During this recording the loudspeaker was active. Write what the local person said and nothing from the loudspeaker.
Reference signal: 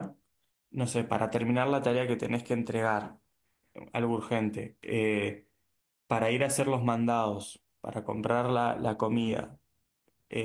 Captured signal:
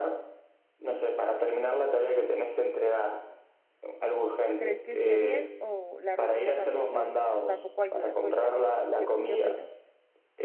crees que esté bien o la rutina tampoco, tampoco ayuda? Cuéntame, ¿qué, qué opinas?

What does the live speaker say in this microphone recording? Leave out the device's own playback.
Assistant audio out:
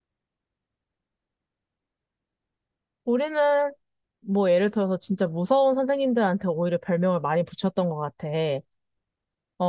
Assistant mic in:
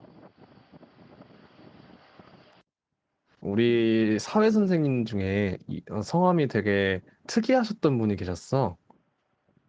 우리 사회 선생님 중에 이- 어, 성함이 되게 특이하셨던 분이 계셨어.

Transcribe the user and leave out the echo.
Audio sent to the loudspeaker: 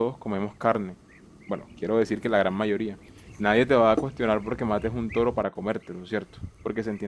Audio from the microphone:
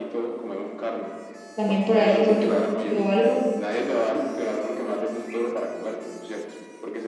también por ahí, por tu pueblo o algo.

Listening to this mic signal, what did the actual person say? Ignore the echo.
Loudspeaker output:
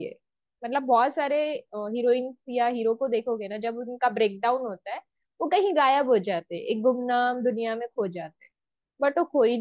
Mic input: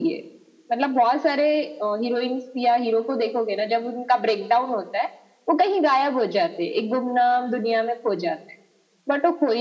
none

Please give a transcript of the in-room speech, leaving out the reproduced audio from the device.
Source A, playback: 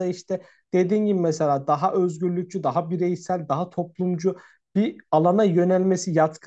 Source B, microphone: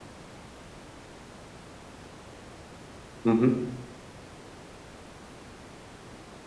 hı hı.

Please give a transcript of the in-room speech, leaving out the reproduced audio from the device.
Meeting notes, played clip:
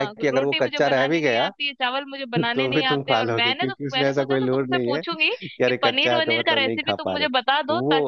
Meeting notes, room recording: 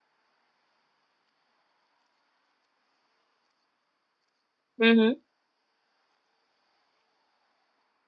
हम्म हम्म

